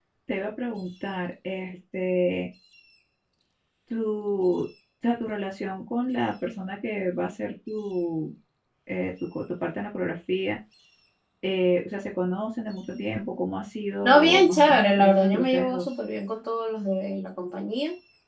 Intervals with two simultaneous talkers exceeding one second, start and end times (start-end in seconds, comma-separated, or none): 14.0-15.8